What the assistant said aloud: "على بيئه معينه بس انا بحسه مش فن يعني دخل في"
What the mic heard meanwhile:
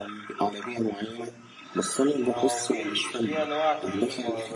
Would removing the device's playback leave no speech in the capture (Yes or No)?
No